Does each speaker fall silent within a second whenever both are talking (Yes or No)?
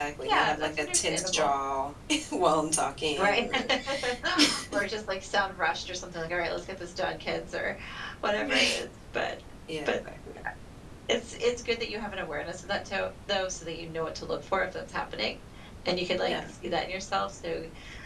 No